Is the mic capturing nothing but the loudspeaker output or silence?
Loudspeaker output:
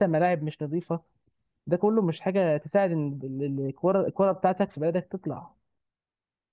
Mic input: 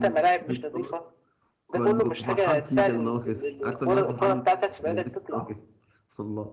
No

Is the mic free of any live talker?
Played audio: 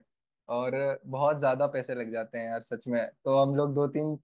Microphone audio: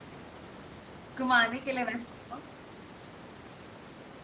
No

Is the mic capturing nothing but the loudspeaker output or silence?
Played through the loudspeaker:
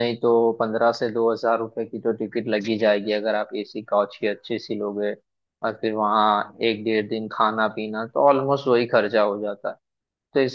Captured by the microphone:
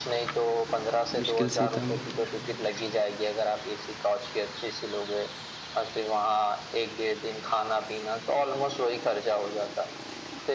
No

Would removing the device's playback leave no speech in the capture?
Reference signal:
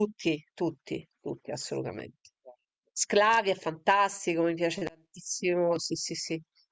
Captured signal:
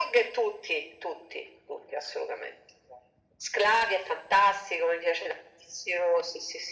Yes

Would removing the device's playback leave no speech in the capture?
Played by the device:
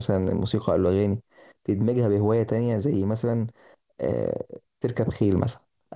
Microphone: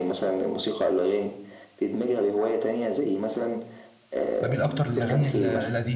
No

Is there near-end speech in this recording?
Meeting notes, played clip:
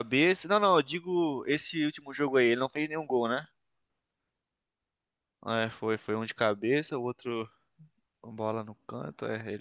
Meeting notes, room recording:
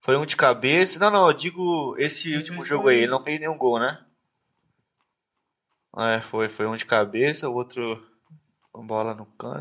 Yes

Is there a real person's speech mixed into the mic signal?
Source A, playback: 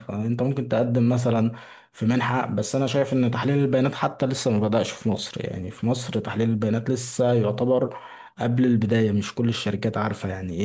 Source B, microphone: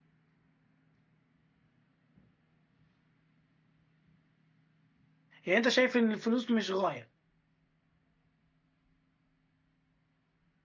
Yes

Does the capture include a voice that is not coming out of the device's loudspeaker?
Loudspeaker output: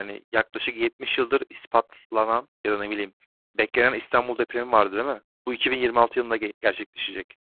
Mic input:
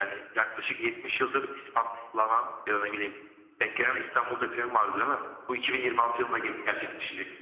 No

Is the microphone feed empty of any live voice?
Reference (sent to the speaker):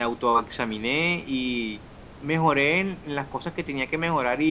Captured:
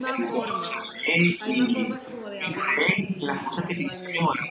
No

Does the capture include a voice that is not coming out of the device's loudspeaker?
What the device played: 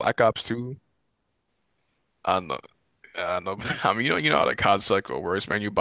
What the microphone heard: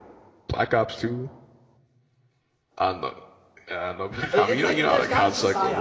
Yes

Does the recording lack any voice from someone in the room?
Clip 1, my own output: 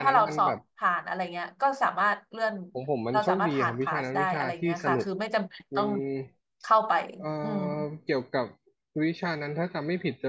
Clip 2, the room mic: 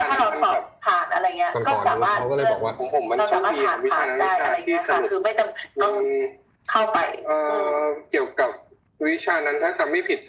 No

